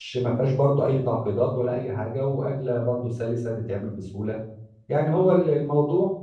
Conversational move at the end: listening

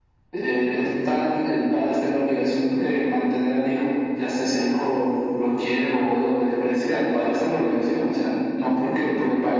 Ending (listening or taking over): listening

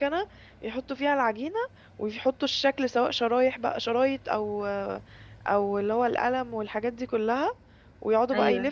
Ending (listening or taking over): listening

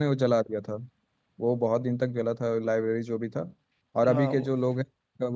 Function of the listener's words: listening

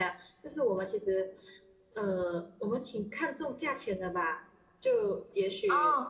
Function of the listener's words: taking over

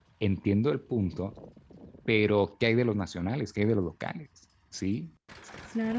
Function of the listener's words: taking over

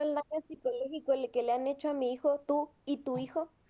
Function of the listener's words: taking over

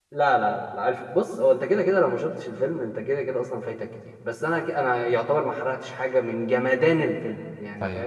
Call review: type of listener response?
taking over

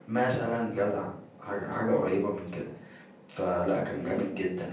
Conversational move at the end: listening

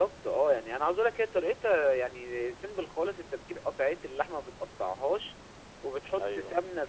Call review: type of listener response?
listening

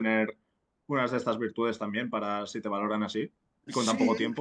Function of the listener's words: taking over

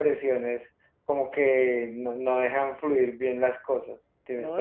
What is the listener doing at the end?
taking over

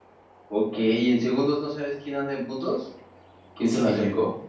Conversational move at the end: taking over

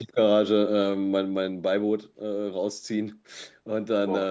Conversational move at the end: listening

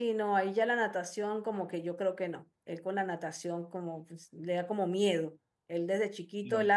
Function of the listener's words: listening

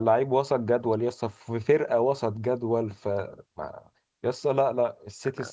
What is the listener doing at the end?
listening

